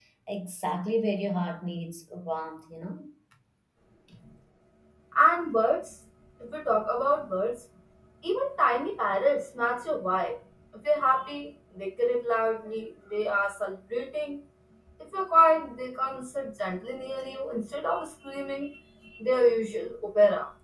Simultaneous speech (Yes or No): No